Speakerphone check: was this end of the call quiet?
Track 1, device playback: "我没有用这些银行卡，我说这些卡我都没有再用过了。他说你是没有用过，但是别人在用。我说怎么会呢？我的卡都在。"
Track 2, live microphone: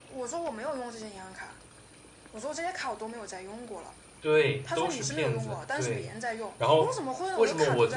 No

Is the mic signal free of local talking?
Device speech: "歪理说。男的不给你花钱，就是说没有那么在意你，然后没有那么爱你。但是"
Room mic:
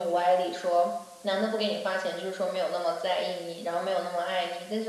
Yes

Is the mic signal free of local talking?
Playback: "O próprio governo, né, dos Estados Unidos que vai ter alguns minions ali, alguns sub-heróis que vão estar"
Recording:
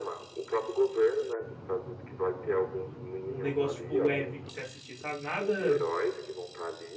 No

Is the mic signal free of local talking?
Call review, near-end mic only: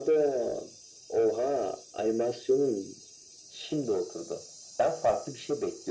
Yes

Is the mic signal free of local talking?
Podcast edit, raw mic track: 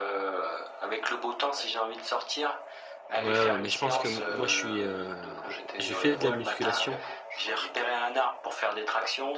No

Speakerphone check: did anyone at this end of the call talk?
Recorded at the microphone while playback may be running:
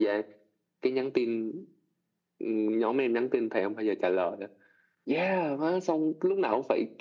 No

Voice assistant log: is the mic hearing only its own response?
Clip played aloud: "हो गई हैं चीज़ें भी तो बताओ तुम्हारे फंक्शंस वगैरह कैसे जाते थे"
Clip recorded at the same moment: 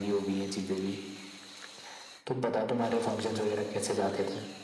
Yes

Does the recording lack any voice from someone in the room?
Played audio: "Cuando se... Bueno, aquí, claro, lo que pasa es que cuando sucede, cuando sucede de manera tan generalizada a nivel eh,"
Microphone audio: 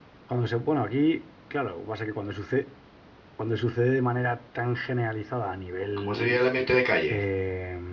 No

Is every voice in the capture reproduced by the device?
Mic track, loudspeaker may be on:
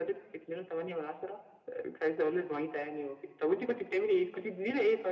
Yes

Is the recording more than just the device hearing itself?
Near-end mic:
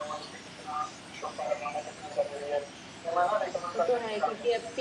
Yes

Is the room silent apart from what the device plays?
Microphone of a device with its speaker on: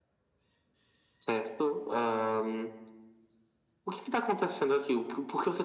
Yes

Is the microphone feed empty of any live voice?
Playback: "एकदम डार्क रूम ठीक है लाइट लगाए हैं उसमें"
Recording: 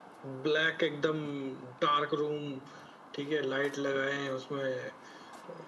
Yes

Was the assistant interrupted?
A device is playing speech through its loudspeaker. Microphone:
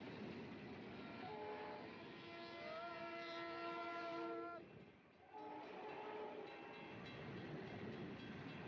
No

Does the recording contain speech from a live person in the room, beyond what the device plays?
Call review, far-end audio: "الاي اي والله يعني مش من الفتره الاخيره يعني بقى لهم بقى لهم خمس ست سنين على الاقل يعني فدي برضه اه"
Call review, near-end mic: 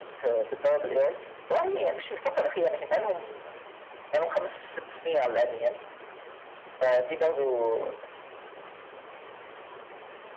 No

